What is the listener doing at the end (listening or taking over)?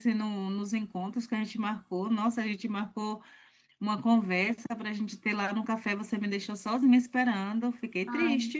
taking over